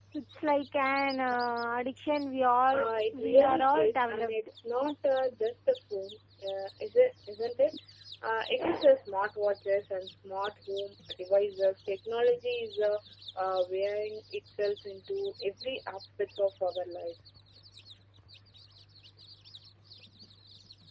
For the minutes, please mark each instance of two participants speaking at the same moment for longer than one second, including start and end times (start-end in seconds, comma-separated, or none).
2.7-4.4